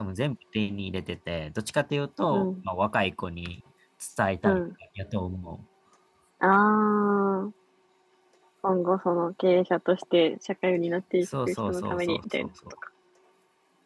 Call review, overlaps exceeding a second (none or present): present